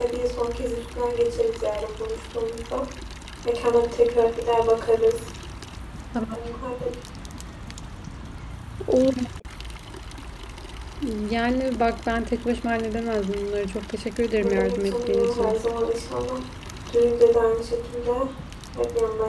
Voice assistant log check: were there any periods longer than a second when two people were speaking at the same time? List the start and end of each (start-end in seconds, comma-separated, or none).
14.4-15.6